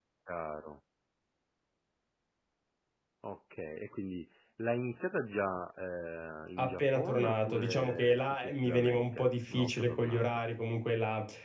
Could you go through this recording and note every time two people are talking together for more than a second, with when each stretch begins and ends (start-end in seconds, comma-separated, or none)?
6.6-10.3